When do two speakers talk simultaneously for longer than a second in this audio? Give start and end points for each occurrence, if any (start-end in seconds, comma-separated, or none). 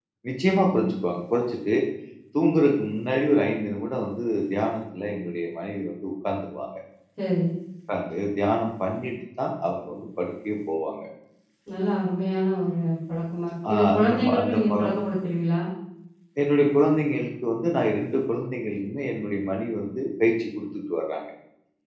13.7-14.9